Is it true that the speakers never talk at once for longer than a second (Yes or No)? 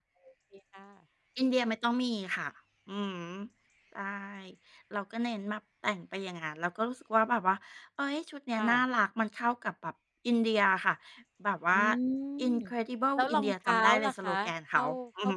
No